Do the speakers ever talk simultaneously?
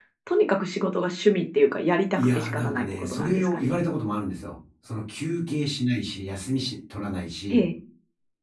Yes, from 2.2 s

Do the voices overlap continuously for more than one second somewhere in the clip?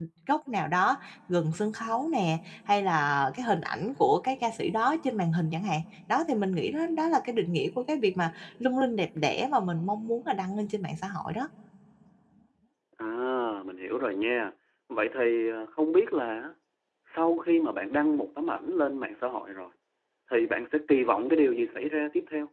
No

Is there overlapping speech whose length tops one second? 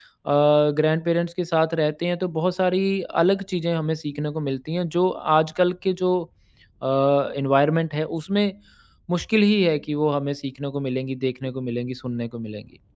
No

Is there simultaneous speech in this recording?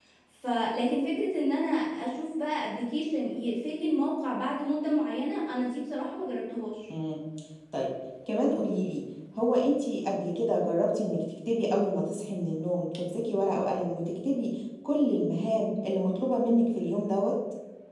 No

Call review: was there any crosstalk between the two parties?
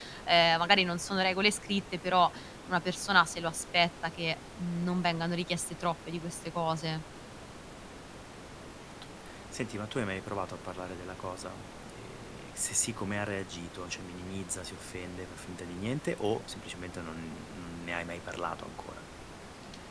No

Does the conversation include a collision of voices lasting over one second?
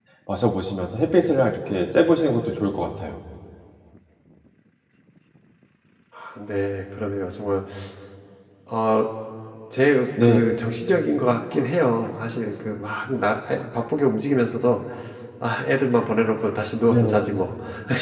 No

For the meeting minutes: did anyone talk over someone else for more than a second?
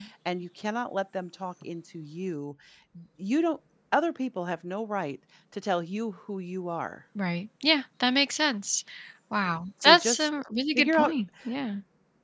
No

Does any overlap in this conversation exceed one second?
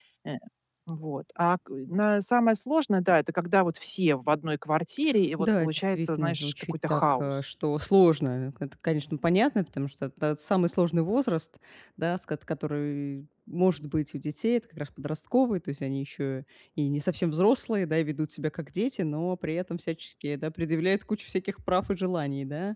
Yes, from 5.4 s

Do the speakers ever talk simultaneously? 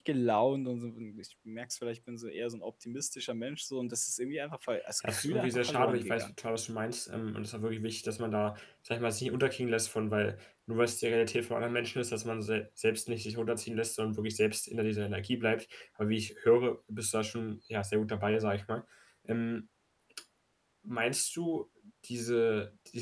Yes, from 5.0 s

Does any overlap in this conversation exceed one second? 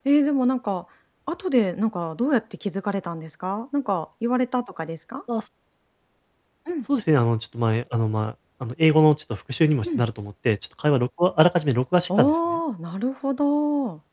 No

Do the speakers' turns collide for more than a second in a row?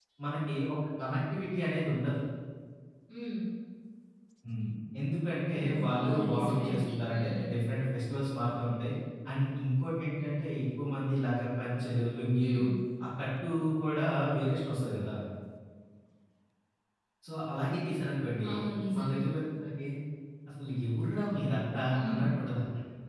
Yes, from 5.6 s

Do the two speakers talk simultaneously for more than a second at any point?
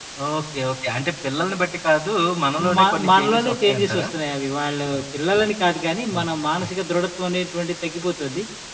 Yes, from 2.8 s

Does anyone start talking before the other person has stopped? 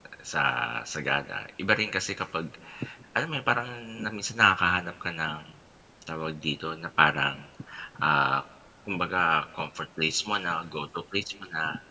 No

